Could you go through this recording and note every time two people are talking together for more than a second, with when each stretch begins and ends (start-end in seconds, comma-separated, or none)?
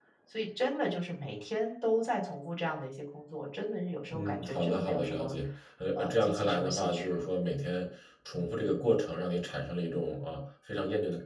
4.1-5.3, 5.9-7.2